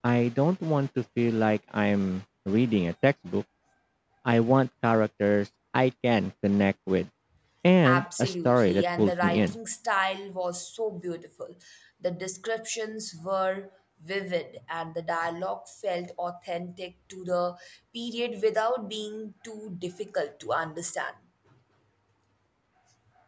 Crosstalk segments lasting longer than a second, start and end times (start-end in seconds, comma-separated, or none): 7.9-9.5